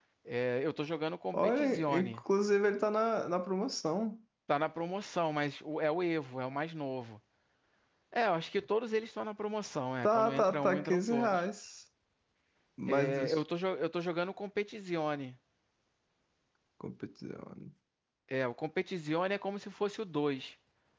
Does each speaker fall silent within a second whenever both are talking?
No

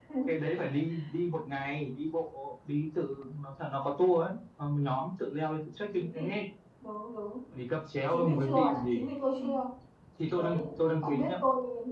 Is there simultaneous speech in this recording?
Yes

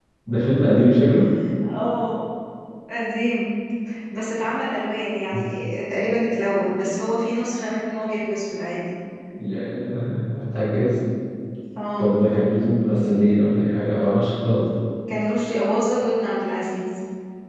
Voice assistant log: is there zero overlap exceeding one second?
Yes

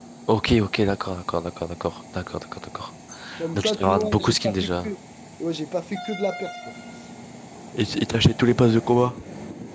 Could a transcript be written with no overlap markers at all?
No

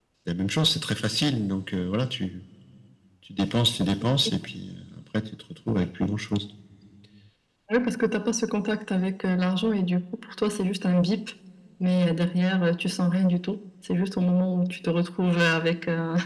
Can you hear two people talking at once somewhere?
No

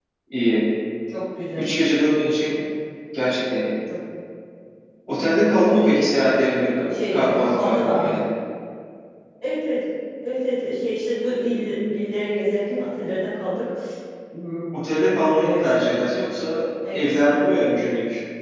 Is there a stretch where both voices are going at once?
Yes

